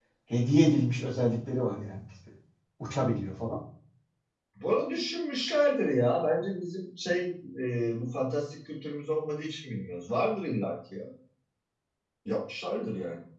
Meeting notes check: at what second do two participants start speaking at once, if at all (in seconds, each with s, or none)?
none